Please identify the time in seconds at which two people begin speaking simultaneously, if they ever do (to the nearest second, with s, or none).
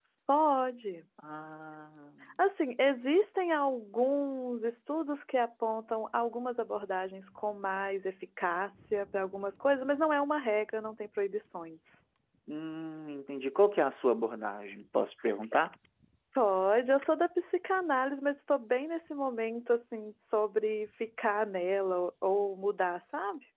none